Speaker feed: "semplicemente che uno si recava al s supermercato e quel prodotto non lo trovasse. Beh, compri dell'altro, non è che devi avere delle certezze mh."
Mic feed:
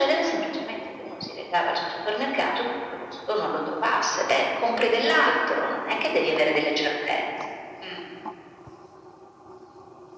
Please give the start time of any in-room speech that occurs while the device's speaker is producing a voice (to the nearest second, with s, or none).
none